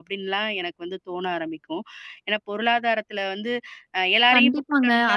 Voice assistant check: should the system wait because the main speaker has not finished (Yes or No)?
No